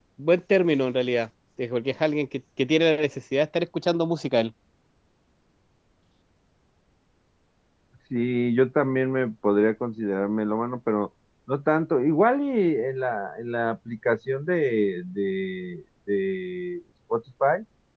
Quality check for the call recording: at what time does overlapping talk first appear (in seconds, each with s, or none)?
none